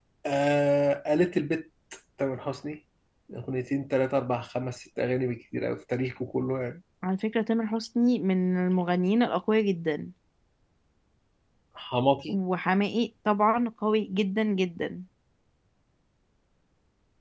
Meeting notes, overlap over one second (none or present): none